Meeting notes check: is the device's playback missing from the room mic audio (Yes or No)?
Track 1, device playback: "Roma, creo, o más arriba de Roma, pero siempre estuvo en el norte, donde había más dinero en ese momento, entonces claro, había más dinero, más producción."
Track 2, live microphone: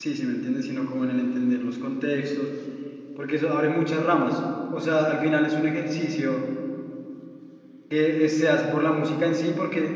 Yes